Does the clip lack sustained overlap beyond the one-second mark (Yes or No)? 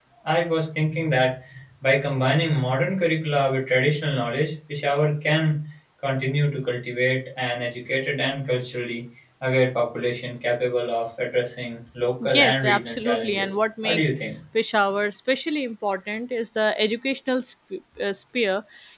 No